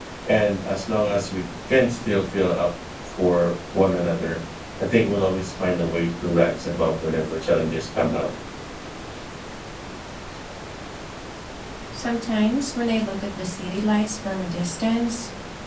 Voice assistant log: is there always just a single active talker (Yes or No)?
Yes